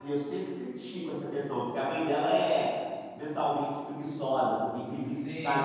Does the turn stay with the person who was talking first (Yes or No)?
Yes